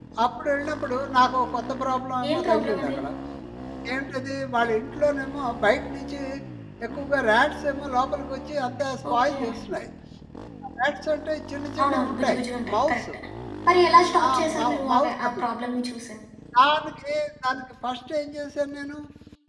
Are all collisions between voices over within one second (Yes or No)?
No